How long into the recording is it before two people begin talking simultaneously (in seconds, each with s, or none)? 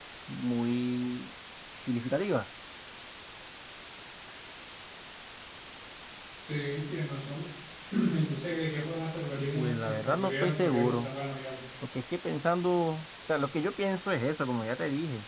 9.5 s